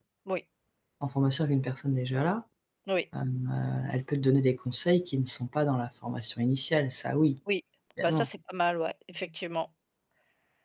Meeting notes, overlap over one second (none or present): none